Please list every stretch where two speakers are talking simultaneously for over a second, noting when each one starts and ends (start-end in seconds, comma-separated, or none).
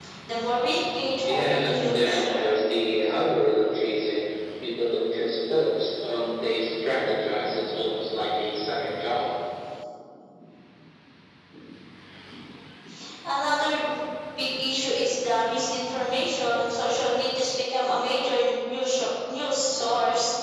1.2-2.5